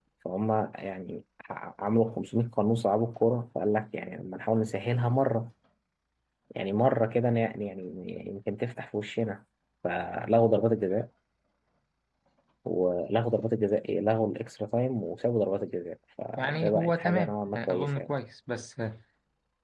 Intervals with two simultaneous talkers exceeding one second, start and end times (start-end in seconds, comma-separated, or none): 16.4-18.1